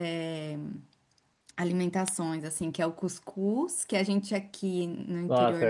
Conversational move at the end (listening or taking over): taking over